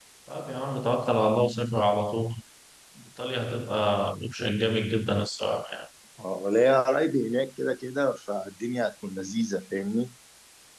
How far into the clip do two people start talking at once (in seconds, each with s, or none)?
none